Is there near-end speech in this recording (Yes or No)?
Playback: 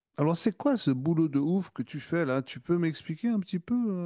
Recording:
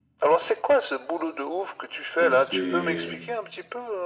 Yes